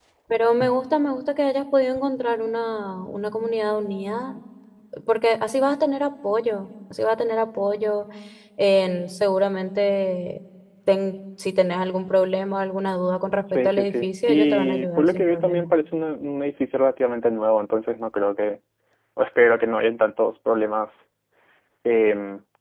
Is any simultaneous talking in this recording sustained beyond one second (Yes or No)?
Yes